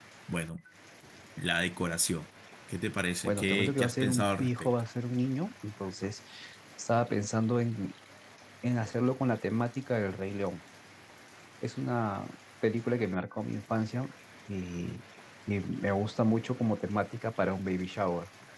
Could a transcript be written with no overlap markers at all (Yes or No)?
No